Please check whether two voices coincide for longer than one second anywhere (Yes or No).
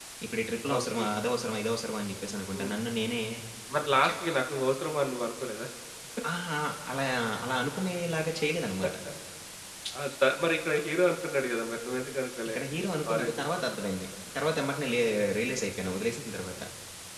No